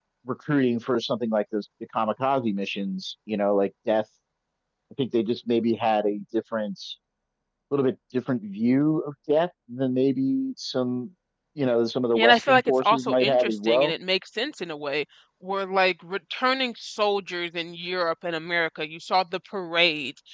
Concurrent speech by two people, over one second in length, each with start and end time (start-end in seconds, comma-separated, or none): 12.2-13.9